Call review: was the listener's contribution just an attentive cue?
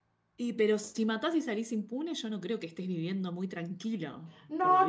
No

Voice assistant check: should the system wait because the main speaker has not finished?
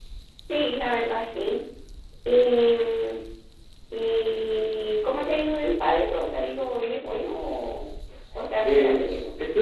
No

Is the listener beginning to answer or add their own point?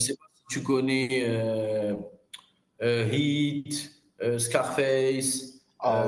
Yes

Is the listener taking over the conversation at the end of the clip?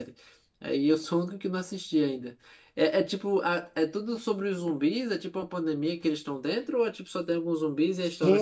Yes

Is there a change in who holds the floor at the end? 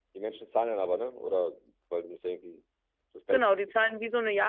Yes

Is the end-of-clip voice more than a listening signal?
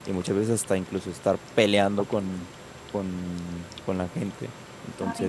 Yes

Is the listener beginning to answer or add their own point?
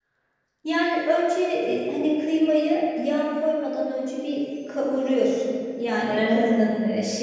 No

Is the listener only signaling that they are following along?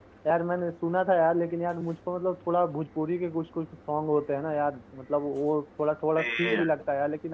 Yes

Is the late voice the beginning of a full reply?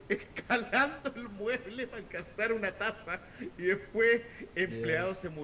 No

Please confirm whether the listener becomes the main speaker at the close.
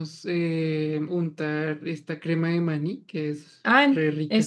Yes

